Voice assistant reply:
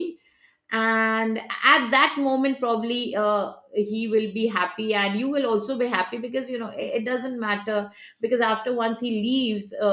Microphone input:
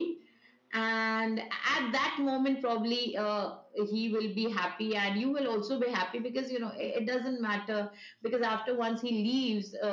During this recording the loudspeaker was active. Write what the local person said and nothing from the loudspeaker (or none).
none